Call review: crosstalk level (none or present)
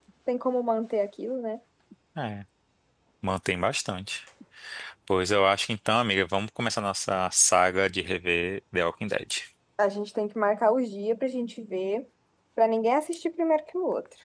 none